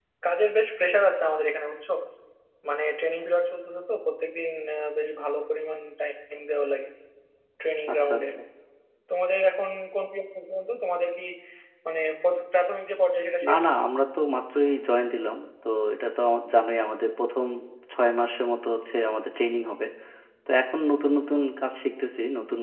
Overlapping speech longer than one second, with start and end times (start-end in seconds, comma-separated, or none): none